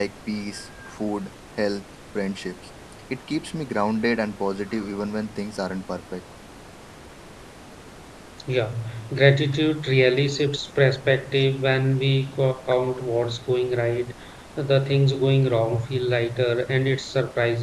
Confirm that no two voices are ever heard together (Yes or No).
Yes